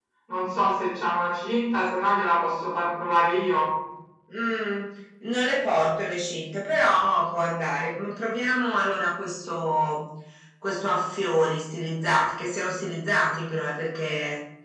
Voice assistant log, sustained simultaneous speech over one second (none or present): none